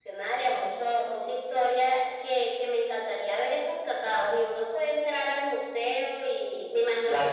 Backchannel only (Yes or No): Yes